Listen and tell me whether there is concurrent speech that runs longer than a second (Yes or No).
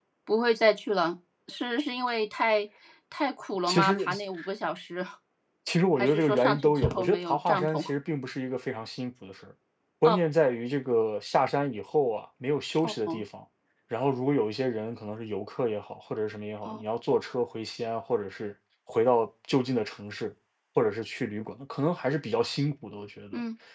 Yes